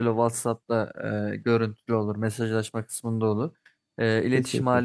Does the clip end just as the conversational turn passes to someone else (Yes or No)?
No